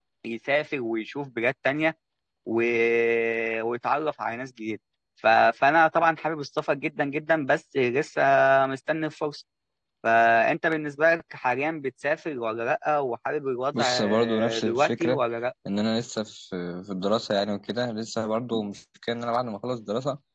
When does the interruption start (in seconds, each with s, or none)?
13.7 s